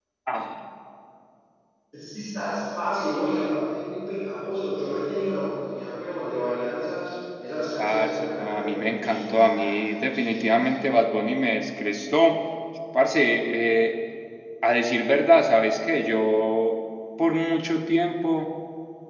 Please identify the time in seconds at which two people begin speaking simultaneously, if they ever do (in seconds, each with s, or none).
7.8 s